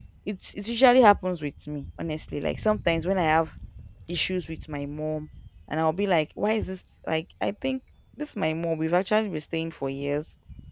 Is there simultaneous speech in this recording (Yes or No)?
No